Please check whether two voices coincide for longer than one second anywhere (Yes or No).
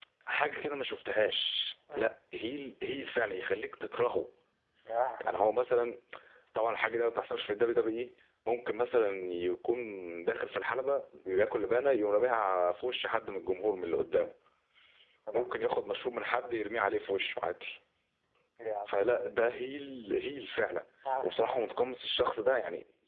No